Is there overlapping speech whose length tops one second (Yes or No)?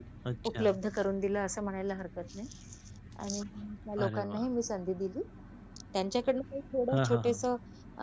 No